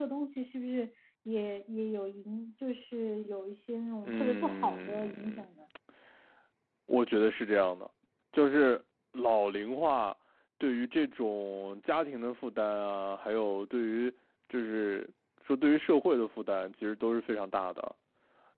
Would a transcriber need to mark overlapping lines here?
Yes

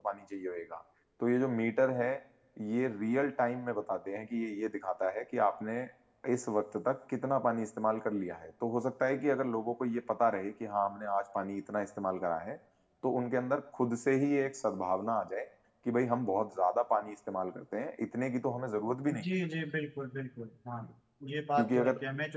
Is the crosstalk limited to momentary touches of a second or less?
Yes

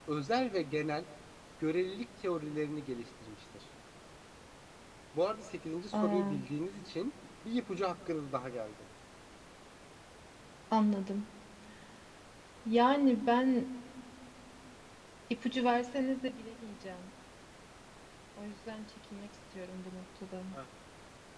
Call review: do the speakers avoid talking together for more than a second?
Yes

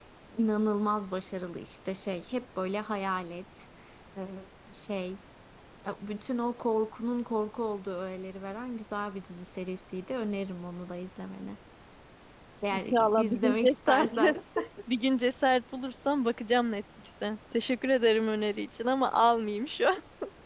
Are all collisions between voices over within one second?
No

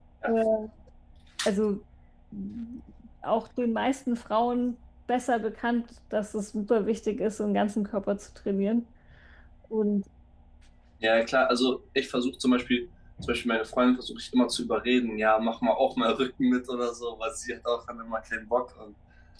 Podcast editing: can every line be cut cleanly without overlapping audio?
Yes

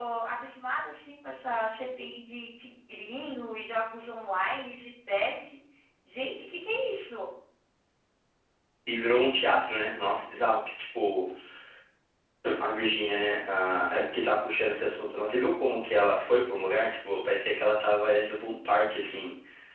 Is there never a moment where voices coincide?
Yes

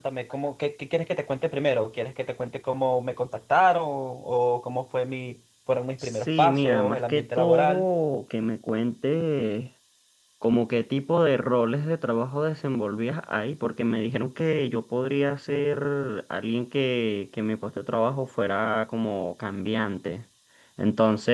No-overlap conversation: No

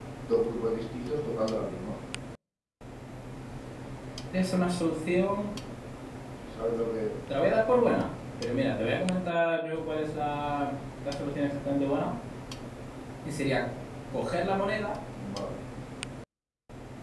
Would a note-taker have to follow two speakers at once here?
No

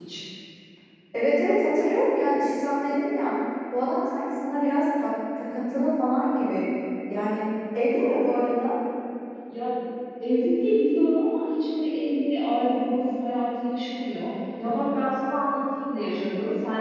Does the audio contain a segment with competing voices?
No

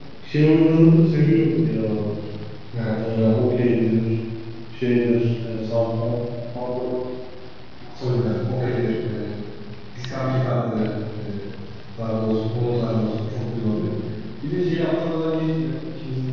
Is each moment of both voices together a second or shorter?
Yes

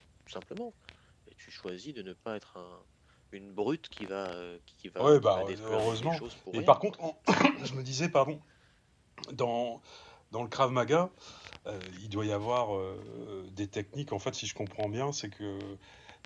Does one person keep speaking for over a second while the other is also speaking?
Yes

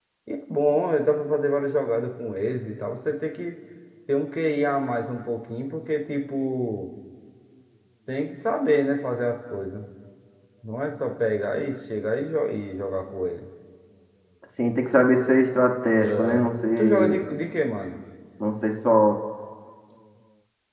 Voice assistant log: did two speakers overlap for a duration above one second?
No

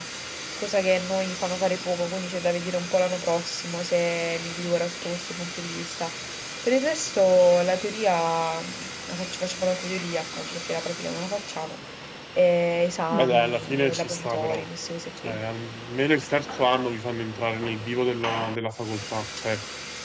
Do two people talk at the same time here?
Yes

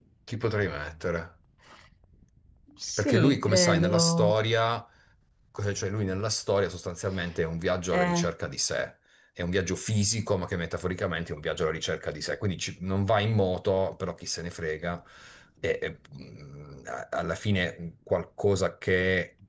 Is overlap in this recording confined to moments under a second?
No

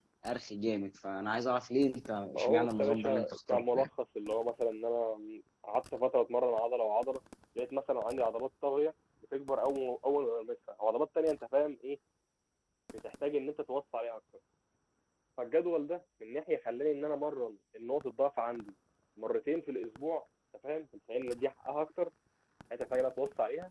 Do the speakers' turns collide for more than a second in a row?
Yes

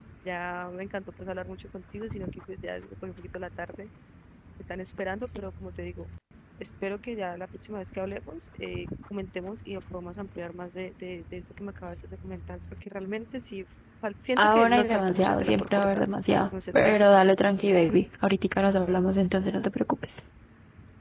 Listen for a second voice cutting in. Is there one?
Yes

